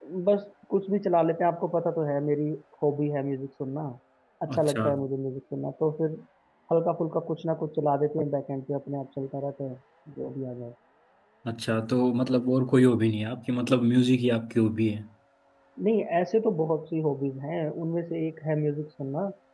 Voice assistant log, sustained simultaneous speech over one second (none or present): none